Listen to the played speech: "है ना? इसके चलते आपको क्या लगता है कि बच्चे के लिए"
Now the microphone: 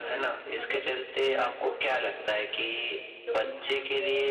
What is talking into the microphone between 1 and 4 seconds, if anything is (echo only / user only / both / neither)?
both